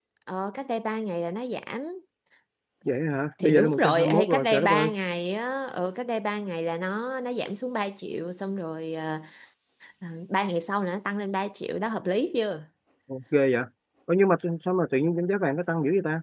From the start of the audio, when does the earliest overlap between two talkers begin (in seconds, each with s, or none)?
3.4 s